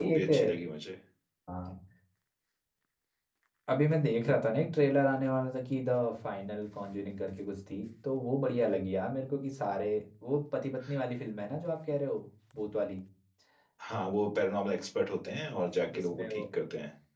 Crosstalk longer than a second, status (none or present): none